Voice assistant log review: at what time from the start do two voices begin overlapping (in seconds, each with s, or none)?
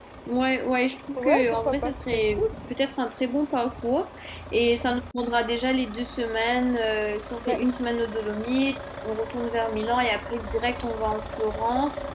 1.2 s